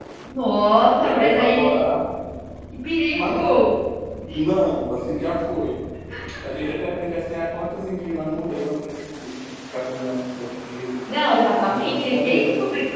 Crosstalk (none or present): present